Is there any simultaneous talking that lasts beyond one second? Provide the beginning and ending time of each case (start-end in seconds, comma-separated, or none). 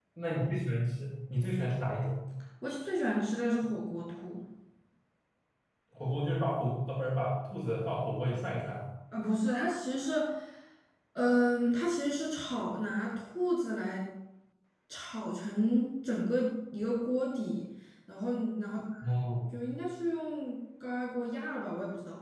none